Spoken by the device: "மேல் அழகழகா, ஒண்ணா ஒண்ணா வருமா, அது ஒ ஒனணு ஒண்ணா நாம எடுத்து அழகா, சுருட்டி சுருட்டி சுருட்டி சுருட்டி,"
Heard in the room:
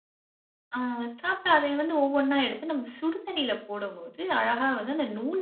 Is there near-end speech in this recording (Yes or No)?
Yes